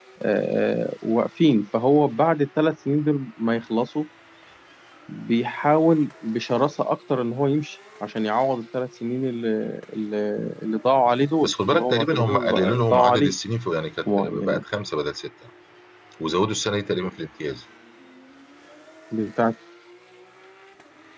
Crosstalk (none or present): present